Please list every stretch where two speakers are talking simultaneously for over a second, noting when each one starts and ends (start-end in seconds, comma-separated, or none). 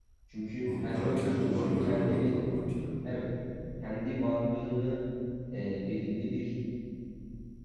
0.7-2.3